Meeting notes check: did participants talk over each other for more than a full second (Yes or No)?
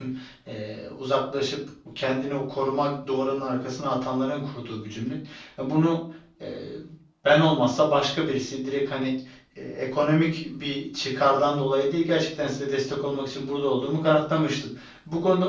No